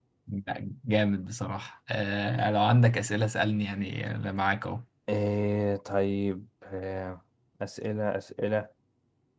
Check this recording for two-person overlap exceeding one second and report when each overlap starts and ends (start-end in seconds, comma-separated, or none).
none